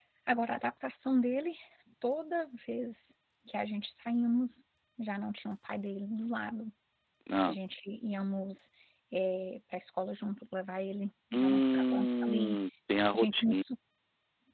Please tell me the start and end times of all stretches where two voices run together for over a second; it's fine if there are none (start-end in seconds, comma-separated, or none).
11.3-12.6